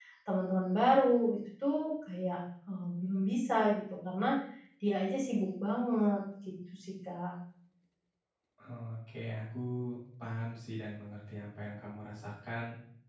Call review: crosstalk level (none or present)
none